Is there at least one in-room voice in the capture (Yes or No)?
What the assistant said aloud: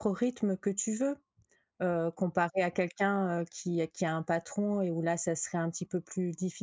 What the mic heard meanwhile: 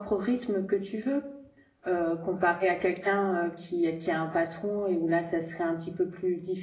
No